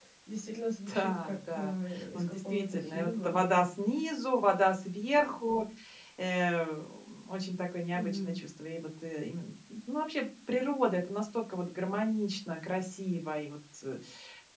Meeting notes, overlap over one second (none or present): present